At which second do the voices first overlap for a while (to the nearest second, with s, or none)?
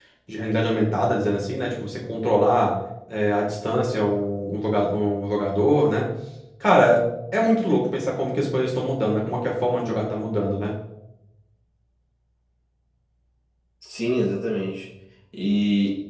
none